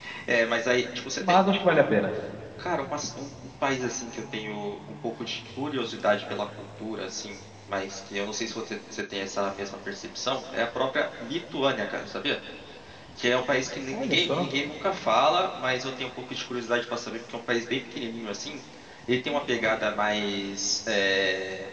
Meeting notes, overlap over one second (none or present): none